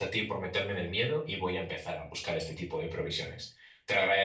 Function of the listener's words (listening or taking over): taking over